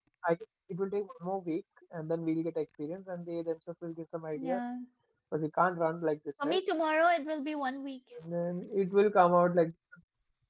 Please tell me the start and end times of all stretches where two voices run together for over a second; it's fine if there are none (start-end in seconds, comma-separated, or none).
none